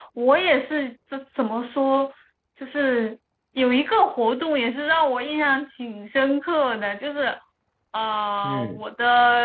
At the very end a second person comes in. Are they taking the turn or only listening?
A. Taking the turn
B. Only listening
B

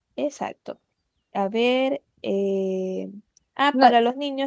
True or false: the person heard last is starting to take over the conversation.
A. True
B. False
B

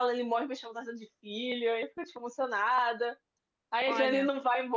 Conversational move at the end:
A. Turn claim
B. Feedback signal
B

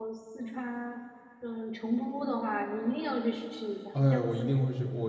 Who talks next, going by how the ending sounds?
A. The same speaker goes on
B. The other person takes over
B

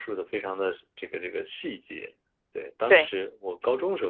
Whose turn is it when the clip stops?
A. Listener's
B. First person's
B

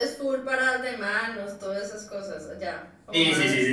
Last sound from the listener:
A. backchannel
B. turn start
B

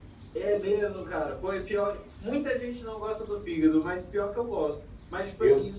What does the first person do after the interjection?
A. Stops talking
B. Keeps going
B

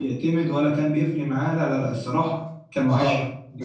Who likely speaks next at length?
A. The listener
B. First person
A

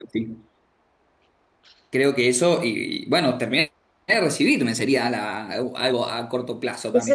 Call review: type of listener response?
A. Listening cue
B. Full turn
B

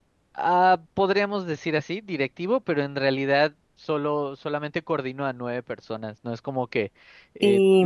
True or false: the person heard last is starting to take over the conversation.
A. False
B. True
A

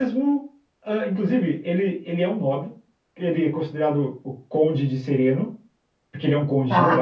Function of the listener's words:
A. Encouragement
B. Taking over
A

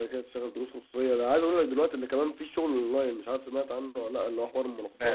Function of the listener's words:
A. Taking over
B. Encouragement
A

